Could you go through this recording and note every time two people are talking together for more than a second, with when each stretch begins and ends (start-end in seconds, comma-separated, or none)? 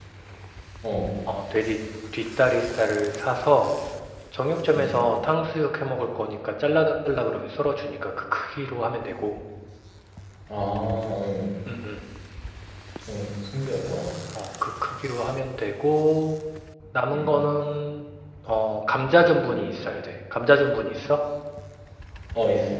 none